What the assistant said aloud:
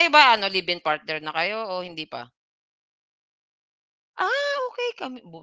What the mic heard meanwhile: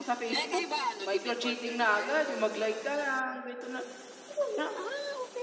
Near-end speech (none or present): present